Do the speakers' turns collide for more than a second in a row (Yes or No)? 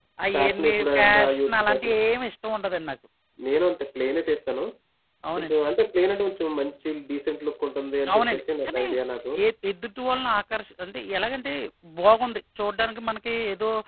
Yes